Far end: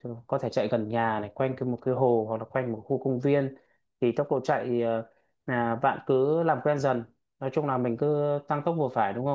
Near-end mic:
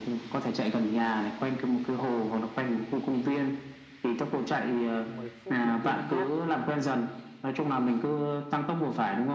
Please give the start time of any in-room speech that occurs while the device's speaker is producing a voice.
5.0 s

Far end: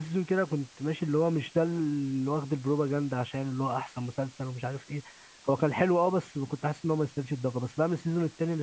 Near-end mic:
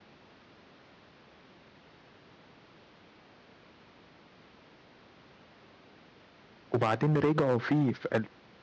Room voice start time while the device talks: 6.7 s

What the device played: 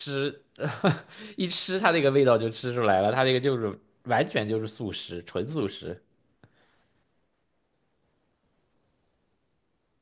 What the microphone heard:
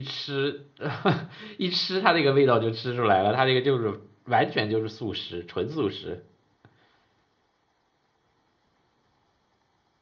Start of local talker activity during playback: none

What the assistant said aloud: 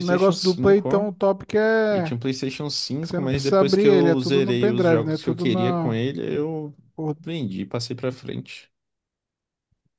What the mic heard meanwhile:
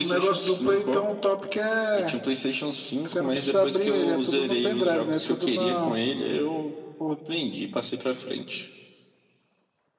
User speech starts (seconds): none

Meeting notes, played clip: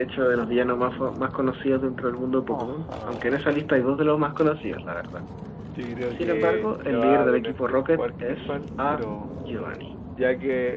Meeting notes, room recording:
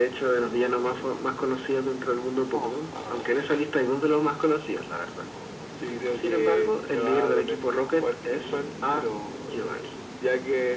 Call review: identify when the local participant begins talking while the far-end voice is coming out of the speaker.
none

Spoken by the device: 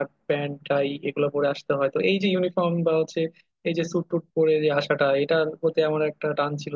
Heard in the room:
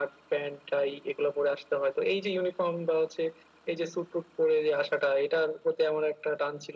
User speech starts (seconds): none

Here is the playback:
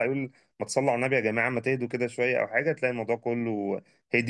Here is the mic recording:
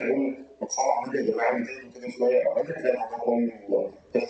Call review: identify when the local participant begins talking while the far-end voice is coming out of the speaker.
none

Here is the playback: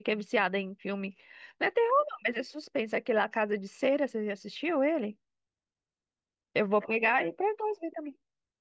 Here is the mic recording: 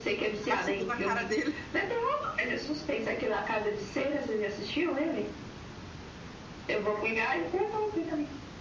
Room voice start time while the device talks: 0.5 s

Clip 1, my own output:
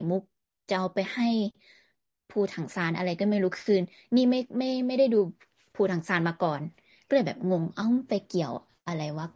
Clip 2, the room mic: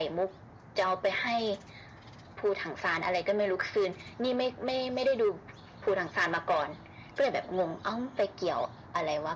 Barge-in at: none

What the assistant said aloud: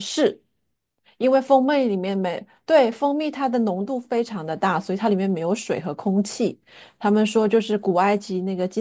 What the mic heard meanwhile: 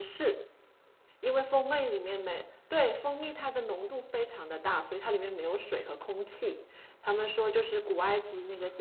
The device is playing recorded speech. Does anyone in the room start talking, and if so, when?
none

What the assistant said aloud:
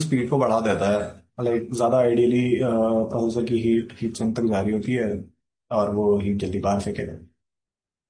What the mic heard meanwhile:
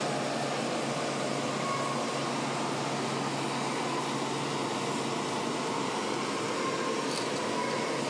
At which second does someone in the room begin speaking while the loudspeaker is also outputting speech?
none

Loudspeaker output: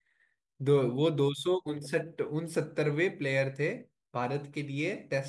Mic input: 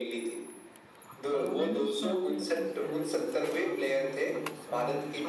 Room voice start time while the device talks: 1.3 s

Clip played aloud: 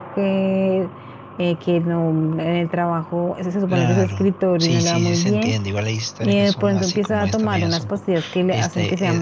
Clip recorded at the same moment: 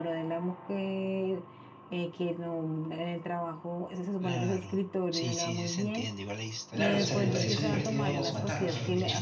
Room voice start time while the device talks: 6.7 s

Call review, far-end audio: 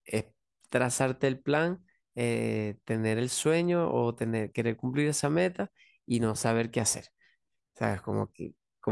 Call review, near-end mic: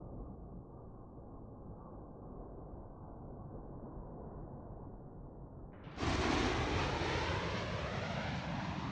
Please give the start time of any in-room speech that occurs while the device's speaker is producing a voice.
none

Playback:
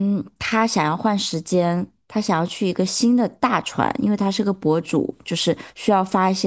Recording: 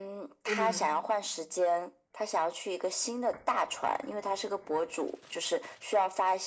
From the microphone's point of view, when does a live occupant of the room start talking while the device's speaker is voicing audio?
0.4 s

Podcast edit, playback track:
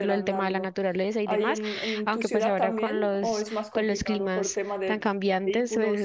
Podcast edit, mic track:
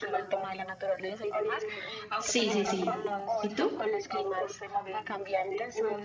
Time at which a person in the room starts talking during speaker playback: 2.1 s

